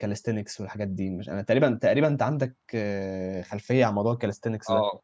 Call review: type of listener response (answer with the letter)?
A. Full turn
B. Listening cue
A